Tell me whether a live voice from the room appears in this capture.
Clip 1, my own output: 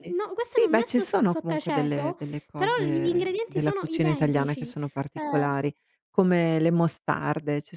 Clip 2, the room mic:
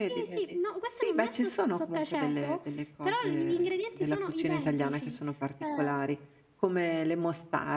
No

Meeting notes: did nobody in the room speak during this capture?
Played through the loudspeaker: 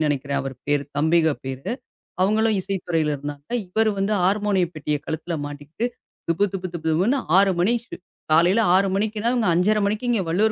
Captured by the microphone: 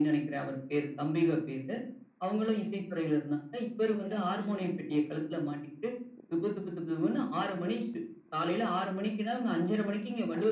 No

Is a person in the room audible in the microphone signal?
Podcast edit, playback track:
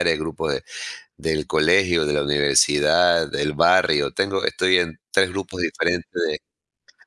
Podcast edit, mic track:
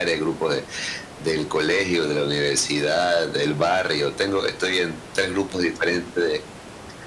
No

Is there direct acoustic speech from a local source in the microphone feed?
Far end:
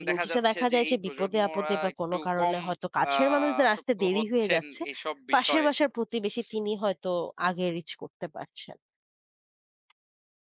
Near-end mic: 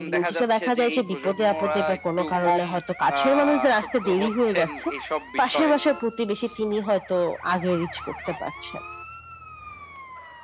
No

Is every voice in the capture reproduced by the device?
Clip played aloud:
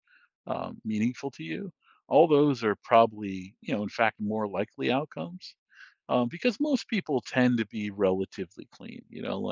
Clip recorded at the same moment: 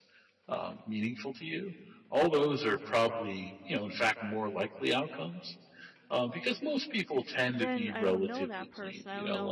No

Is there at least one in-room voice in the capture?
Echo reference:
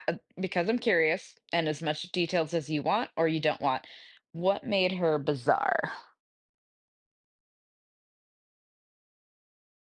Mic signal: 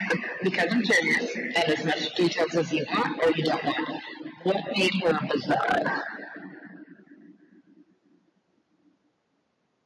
No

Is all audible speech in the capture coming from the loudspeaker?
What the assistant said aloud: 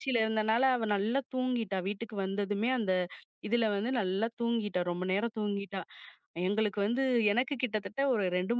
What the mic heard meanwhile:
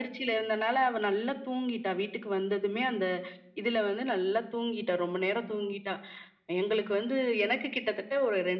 Yes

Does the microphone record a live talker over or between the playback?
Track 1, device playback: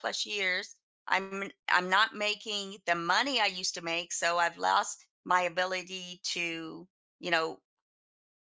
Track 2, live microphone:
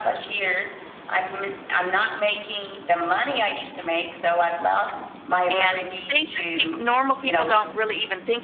Yes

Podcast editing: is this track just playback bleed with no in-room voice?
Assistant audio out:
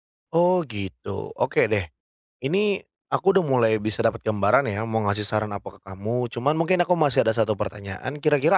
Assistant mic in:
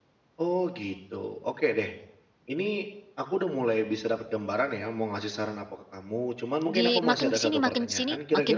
No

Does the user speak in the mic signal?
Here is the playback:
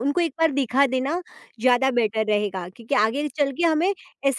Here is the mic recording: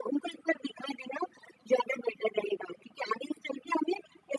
No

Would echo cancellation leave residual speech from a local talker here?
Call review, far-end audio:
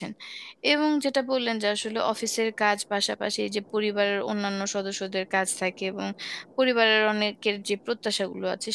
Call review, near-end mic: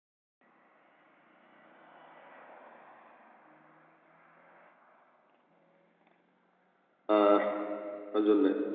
Yes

